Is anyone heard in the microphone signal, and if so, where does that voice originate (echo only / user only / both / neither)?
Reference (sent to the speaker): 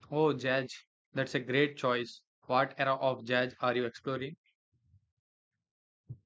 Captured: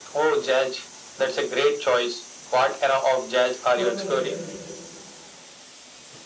both